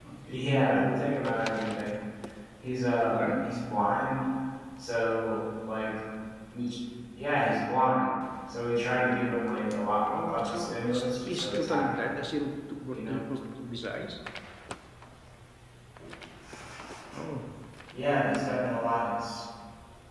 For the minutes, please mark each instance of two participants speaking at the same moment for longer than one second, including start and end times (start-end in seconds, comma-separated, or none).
10.1-12.0